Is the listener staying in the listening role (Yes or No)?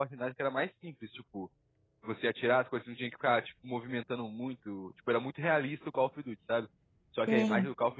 Yes